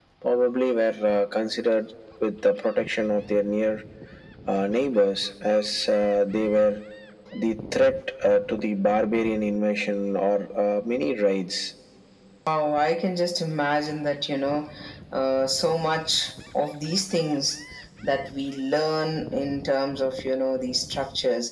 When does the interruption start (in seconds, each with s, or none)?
none